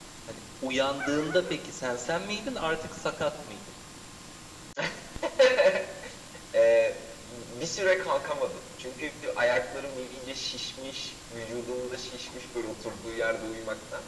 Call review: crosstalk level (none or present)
none